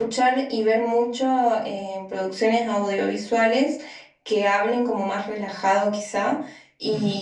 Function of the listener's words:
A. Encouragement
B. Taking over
A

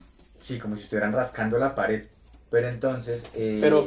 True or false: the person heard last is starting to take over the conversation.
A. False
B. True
B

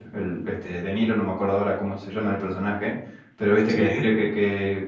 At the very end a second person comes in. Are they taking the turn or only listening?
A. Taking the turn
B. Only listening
B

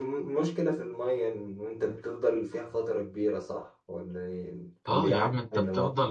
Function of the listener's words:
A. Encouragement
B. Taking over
B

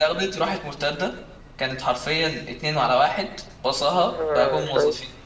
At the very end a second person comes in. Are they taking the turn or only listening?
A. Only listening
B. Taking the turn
B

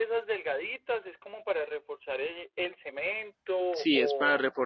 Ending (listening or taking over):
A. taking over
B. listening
A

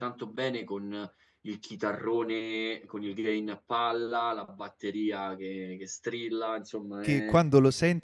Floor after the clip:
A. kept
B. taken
B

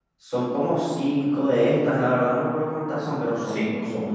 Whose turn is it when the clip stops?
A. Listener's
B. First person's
B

